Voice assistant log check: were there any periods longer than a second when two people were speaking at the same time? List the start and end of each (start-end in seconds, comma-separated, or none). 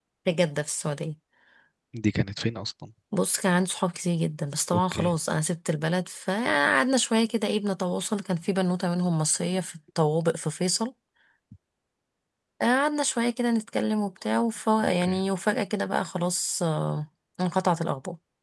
none